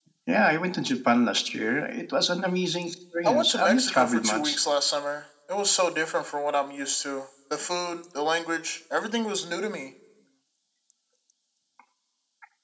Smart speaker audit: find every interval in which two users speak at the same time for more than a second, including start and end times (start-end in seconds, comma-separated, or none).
3.2-4.6